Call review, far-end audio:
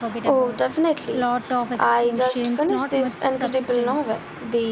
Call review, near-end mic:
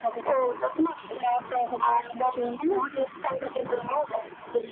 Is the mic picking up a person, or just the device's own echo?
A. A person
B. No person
B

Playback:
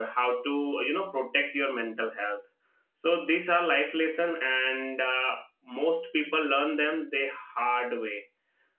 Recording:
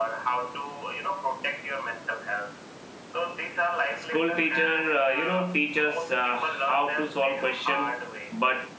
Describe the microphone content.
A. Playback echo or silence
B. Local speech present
B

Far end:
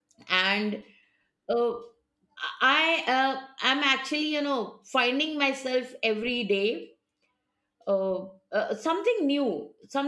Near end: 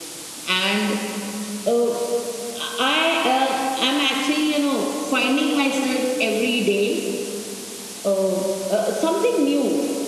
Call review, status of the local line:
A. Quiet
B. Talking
A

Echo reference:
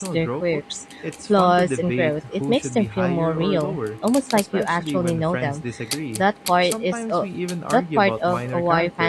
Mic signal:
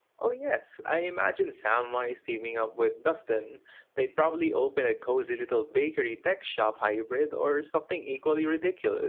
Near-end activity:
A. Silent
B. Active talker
B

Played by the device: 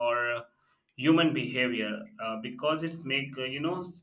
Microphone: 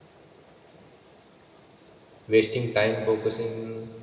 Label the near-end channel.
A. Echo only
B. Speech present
B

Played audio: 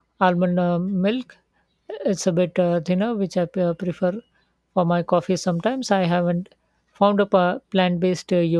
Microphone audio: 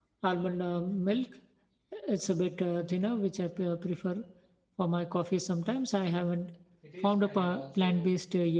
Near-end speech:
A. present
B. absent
A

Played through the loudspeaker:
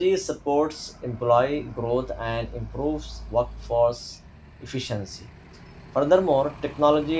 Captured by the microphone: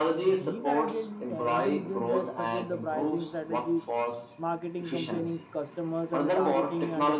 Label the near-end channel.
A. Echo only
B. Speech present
B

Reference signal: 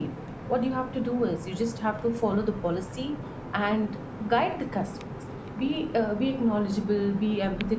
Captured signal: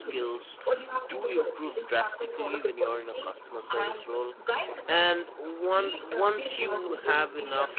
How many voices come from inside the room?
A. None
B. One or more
B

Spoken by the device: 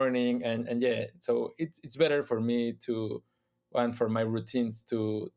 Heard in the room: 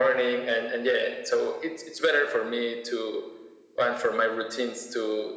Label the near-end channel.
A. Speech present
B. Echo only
B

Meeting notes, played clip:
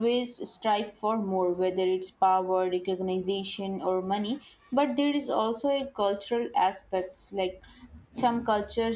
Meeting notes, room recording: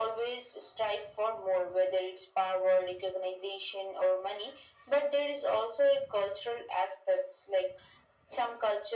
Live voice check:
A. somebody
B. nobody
B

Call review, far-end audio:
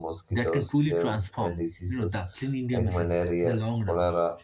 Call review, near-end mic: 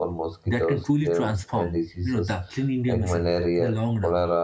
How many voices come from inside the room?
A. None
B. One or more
A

